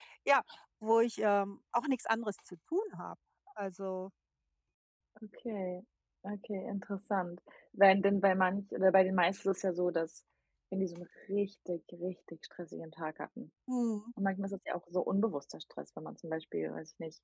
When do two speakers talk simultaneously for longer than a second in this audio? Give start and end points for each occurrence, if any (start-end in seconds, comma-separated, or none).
none